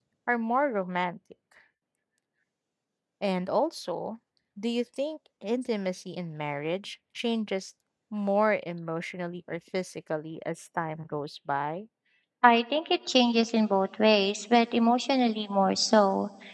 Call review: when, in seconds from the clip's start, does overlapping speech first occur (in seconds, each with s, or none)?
none